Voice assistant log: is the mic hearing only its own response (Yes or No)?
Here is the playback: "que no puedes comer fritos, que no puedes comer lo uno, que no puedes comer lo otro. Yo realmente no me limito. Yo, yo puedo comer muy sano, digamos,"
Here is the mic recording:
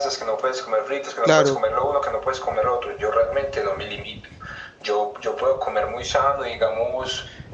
No